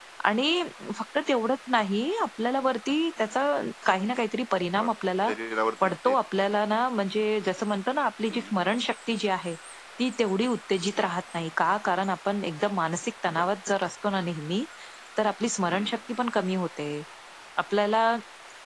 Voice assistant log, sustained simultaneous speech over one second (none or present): none